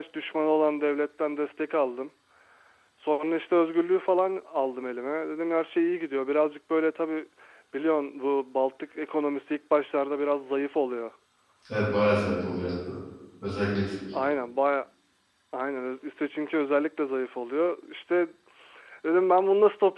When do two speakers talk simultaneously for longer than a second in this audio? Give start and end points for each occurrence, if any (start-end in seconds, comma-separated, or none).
none